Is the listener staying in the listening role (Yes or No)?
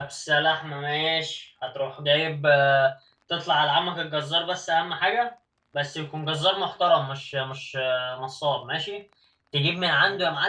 Yes